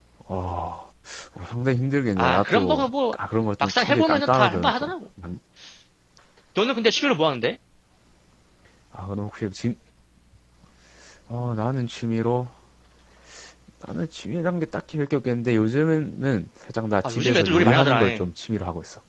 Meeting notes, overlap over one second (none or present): present